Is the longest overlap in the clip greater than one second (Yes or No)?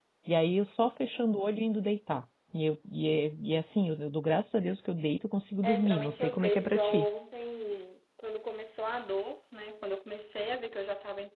Yes